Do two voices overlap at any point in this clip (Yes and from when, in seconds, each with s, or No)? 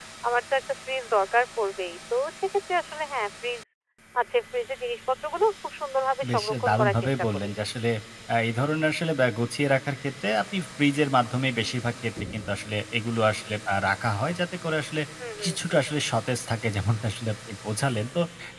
Yes, from 6.3 s